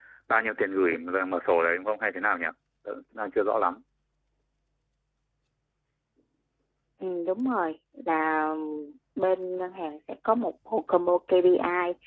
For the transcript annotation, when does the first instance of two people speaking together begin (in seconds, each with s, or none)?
none